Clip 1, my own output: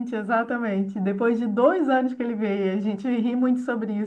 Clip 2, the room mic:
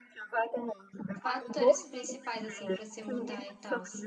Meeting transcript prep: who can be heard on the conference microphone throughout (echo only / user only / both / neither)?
both